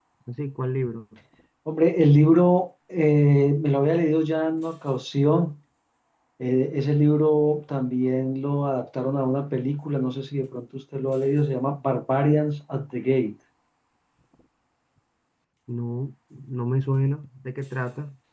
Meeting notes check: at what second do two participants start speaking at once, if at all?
none

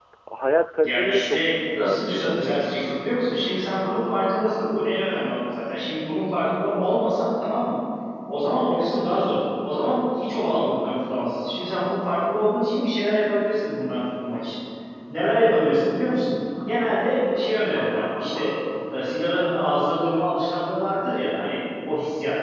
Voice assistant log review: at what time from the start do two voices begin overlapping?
0.8 s

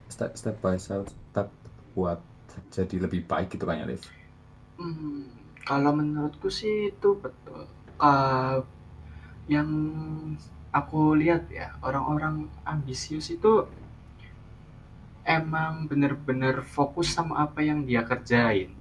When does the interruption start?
none

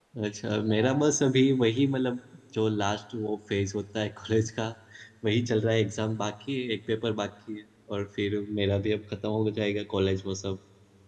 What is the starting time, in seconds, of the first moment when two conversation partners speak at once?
none

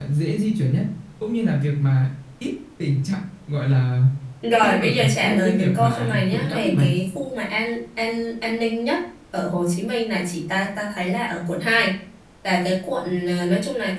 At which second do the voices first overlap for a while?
4.6 s

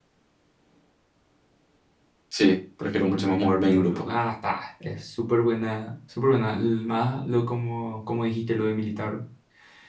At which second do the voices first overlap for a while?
2.8 s

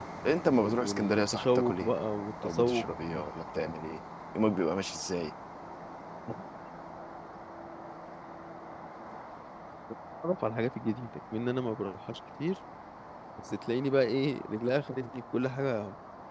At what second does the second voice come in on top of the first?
0.6 s

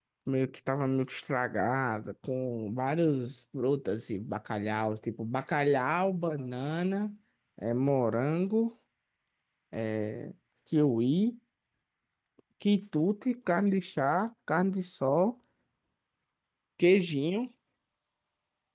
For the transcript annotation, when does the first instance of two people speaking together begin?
none

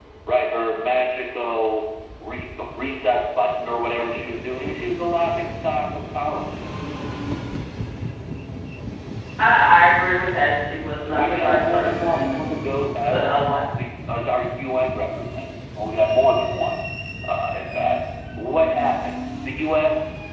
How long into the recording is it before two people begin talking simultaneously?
11.1 s

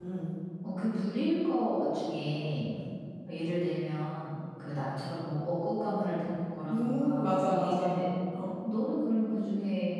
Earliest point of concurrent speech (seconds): 6.7 s

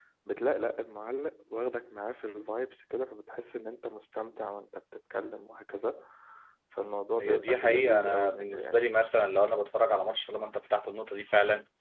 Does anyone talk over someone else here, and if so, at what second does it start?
7.2 s

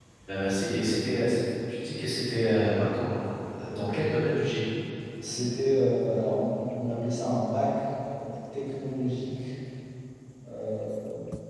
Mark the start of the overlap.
none

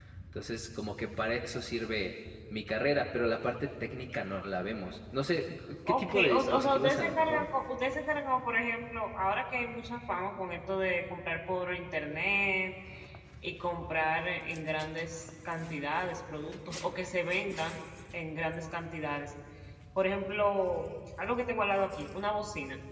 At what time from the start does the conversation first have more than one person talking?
5.9 s

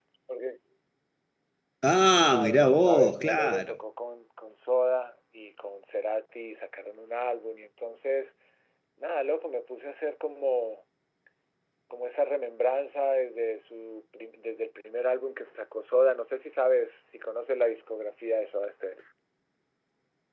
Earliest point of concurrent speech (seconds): 2.3 s

